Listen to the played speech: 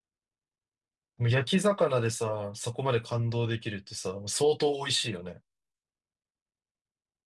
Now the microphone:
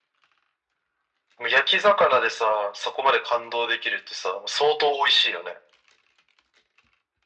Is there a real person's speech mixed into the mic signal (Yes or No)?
No